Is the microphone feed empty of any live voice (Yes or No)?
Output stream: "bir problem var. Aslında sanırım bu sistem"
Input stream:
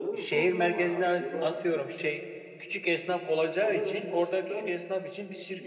No